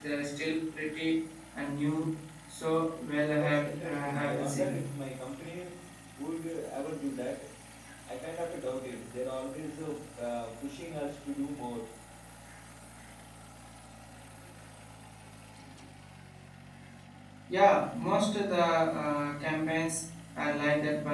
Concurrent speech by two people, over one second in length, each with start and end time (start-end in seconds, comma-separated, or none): 3.4-4.8